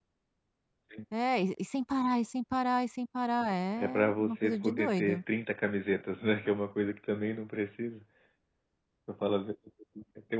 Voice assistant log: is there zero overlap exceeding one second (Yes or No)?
No